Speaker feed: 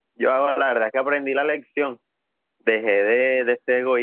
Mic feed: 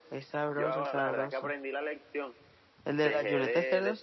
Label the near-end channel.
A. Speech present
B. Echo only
A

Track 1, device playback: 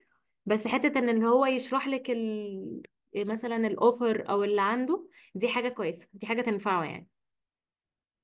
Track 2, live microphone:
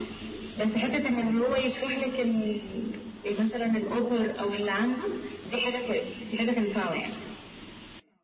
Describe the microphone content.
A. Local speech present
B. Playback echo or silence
B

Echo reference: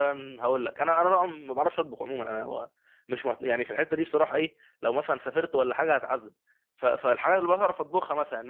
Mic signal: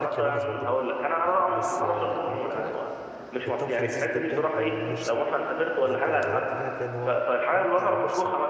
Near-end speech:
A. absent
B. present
B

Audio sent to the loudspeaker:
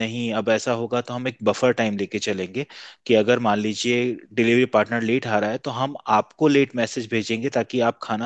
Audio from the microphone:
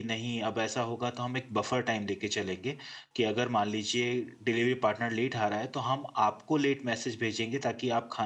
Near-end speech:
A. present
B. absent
B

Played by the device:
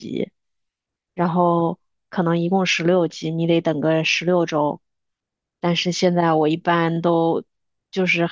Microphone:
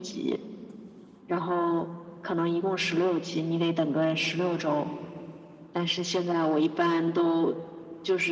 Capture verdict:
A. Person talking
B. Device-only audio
B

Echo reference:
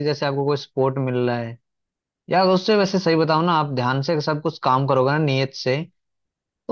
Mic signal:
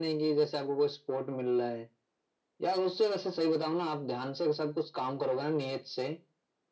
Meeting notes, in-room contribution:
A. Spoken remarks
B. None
B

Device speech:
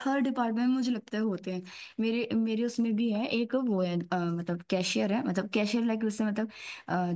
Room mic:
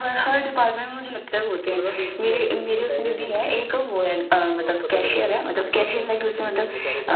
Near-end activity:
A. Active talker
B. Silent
A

